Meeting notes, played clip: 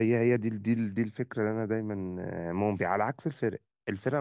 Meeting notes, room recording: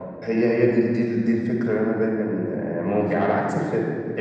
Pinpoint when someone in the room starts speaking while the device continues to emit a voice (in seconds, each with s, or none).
none